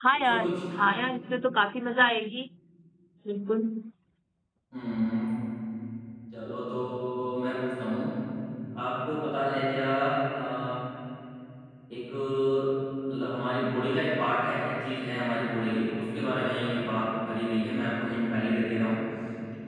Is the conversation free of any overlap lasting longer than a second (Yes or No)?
Yes